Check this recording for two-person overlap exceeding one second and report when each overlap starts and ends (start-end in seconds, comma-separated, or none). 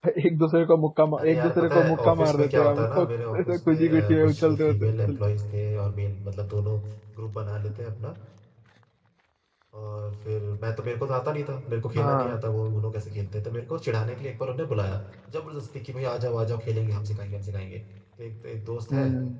1.2-5.2